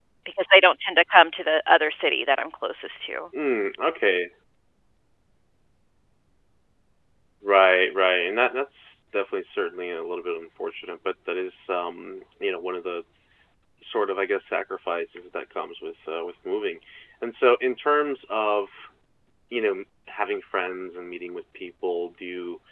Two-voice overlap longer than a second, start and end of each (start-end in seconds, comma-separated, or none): none